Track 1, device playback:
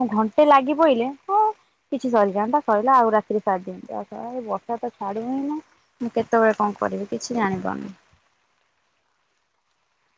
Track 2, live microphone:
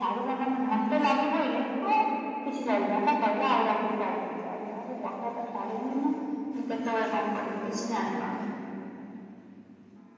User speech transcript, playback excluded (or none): none